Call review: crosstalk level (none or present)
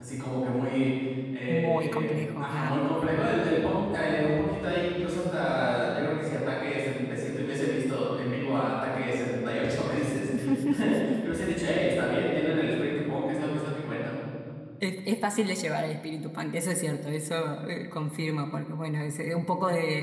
present